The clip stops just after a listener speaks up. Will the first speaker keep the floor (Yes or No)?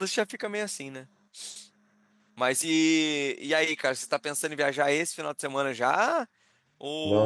No